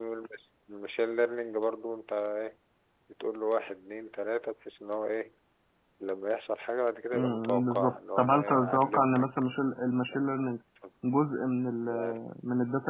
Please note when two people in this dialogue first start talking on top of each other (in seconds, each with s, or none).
7.1 s